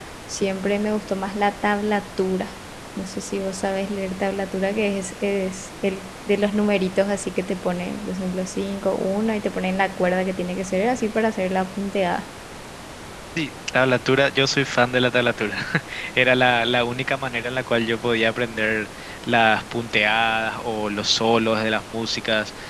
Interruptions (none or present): none